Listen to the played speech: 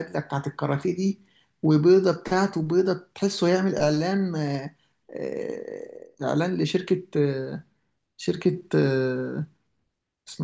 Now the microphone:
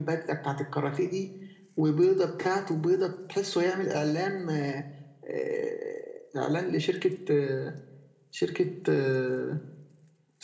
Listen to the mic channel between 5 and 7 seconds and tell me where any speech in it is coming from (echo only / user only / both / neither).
echo only